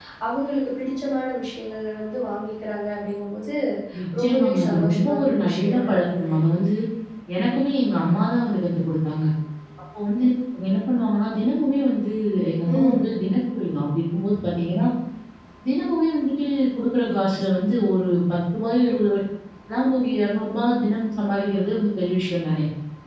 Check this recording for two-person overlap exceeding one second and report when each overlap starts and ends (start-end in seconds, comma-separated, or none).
4.2-6.3